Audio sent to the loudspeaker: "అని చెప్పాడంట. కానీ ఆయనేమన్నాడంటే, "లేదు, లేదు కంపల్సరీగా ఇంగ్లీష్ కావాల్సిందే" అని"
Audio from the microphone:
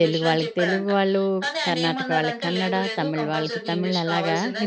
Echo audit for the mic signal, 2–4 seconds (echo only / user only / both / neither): both